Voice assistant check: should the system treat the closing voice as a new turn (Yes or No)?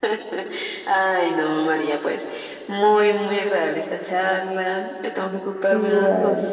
No